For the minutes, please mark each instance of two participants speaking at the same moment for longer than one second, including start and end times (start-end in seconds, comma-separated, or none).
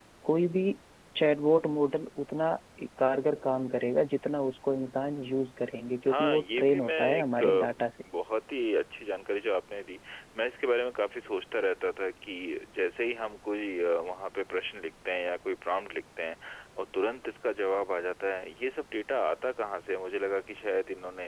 6.1-7.8